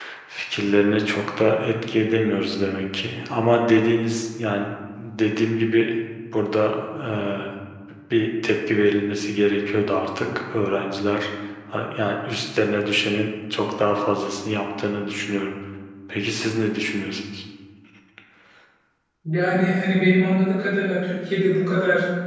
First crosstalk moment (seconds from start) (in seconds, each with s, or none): none